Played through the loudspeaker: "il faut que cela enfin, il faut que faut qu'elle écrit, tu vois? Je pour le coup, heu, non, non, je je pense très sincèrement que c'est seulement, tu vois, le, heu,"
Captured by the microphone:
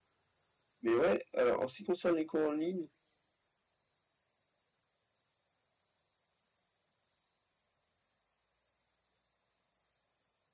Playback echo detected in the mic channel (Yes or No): No